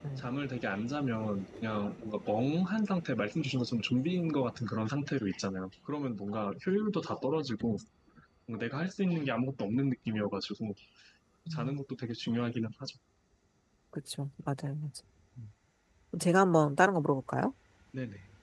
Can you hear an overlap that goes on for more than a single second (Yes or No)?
No